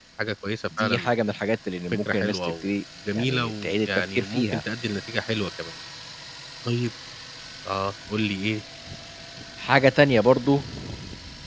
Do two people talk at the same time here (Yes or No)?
Yes